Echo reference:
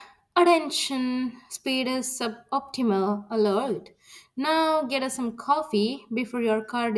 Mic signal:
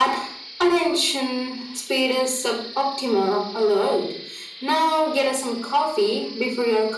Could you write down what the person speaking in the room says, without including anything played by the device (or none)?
none